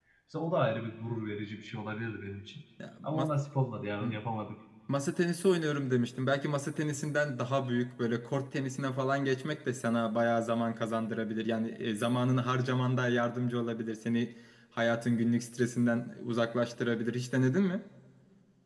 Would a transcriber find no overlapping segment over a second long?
Yes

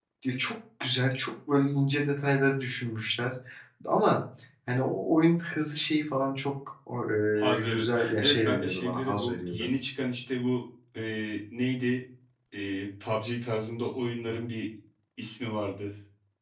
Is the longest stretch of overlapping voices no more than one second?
No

